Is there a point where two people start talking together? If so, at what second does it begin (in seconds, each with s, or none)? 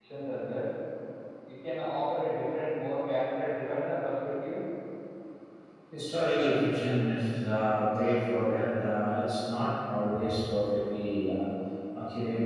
none